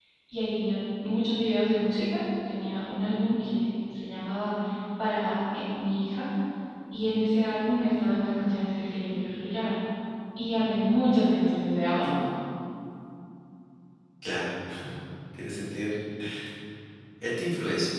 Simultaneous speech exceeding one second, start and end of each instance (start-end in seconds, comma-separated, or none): none